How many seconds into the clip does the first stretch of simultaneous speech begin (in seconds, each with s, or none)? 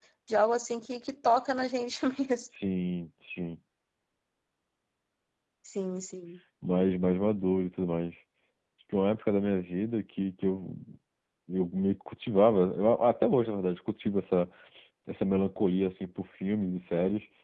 none